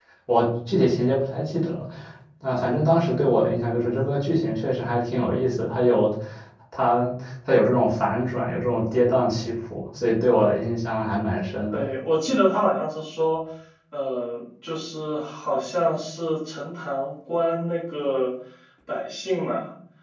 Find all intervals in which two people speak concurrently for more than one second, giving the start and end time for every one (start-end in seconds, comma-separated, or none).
none